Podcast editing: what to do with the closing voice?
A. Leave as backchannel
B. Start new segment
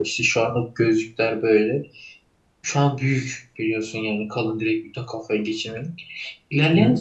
A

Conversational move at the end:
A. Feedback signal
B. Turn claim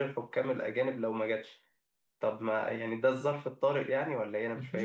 B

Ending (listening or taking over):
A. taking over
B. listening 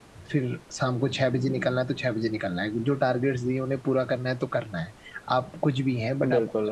B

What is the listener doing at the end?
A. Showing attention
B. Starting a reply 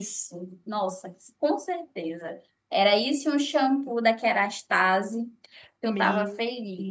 B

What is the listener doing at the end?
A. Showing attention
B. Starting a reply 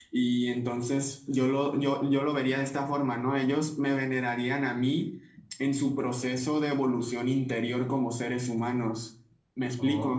B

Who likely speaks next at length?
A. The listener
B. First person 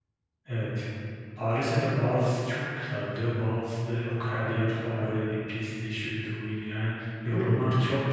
B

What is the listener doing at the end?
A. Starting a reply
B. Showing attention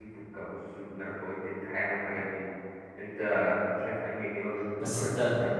A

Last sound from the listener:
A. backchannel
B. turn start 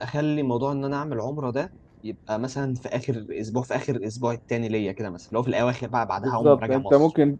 B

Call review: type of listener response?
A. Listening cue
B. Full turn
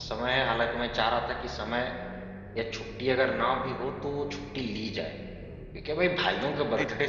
A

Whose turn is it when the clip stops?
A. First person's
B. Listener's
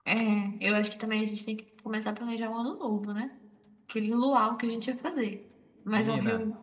B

